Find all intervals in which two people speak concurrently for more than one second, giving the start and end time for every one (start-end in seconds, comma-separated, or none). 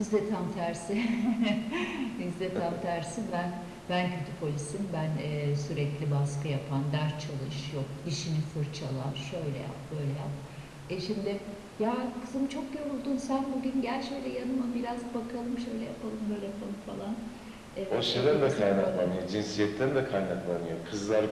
17.9-19.1